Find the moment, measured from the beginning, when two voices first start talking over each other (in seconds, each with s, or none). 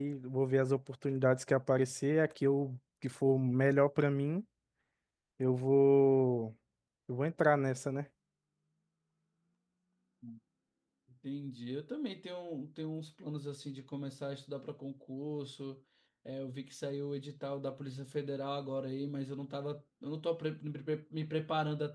none